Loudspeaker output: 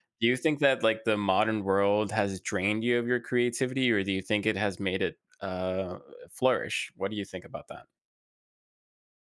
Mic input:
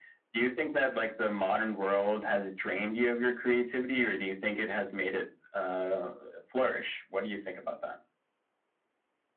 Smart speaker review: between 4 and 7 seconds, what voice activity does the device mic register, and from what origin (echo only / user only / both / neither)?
echo only